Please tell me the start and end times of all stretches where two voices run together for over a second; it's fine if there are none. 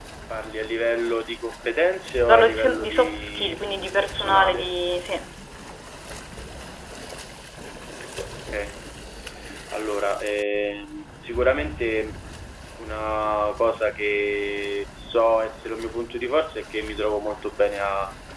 2.2-4.7

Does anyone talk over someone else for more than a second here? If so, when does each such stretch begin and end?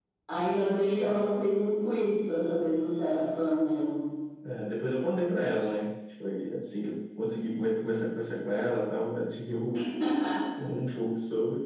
none

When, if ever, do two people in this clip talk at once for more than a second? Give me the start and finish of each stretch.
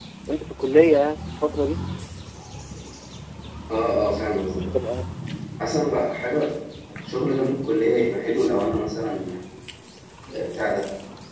none

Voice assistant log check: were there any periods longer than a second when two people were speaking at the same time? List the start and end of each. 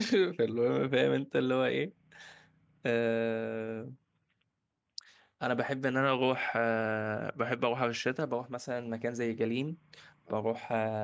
none

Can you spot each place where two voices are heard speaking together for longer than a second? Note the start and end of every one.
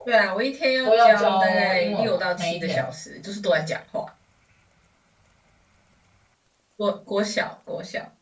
0.8-2.9

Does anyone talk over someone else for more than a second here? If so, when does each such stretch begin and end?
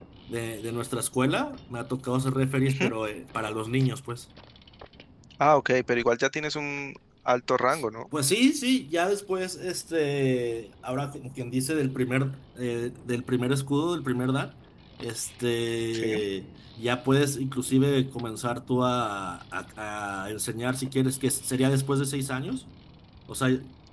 none

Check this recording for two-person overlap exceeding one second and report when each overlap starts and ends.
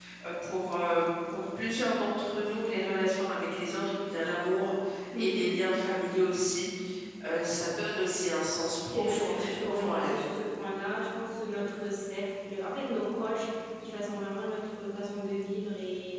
8.9-10.3

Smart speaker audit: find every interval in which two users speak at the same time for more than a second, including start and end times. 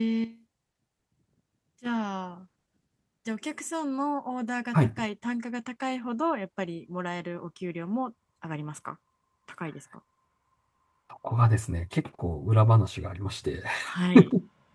none

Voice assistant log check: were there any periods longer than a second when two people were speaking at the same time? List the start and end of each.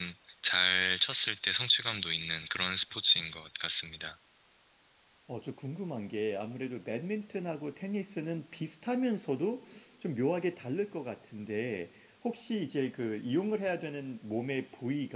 none

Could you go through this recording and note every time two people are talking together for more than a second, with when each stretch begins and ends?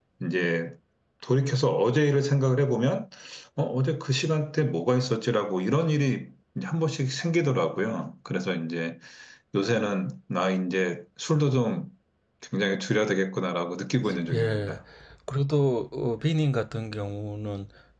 none

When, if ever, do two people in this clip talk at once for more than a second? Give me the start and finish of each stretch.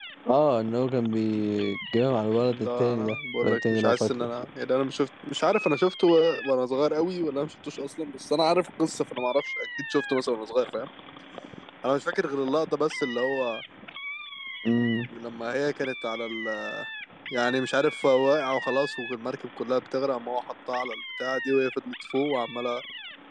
2.4-4.3

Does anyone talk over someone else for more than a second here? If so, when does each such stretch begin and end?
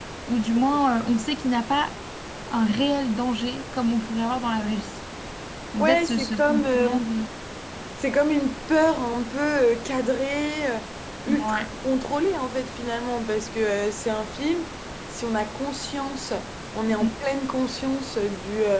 5.8-7.0

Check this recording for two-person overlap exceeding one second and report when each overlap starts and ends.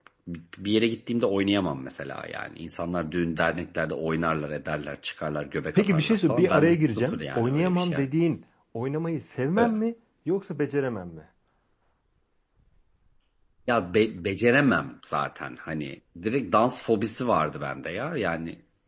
5.8-8.0

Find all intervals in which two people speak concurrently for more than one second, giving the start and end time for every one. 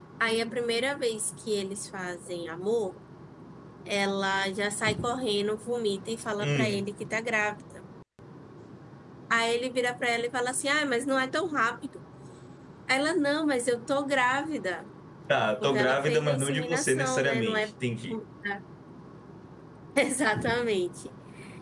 15.6-17.7

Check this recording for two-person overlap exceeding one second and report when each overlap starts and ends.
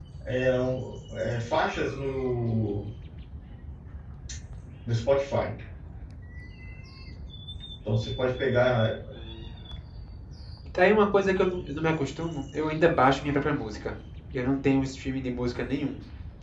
none

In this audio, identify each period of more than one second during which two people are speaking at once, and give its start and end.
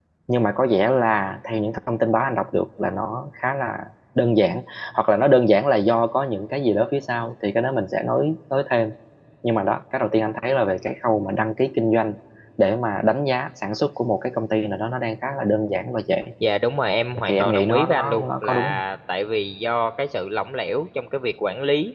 17.3-18.8

